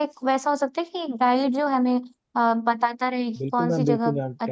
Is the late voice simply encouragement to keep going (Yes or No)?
No